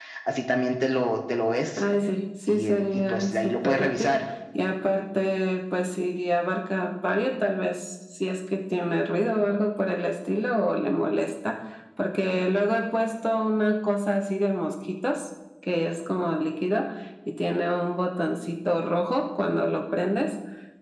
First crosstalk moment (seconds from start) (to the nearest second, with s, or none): 2 s